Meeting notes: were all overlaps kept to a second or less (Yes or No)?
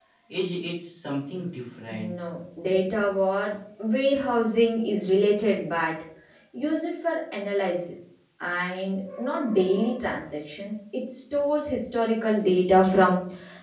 Yes